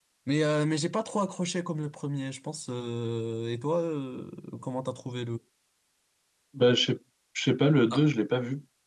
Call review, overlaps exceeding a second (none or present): none